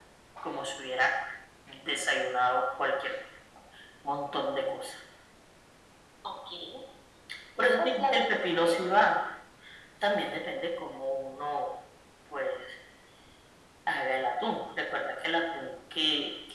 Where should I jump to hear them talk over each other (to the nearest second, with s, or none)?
8 s